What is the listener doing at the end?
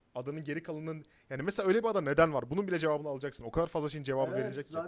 taking over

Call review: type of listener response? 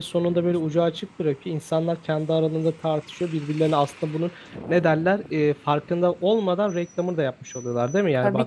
taking over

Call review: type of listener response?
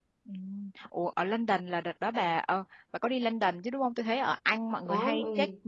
listening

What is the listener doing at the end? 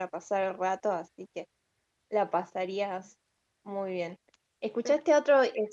listening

